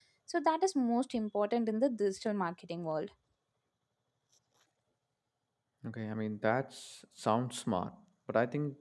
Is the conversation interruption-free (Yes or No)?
Yes